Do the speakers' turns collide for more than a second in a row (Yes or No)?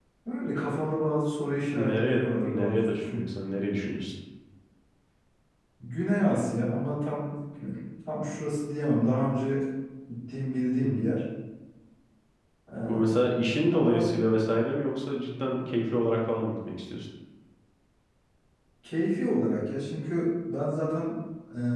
Yes